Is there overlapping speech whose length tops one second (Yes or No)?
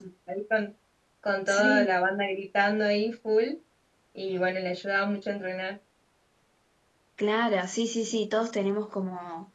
No